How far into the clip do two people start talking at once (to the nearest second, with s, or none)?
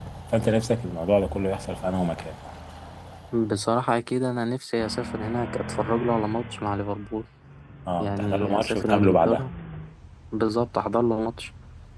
8 s